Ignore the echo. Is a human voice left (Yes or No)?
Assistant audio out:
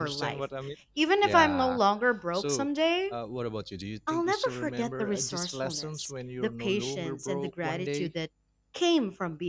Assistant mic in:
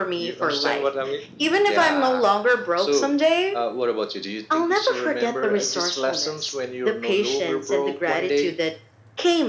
No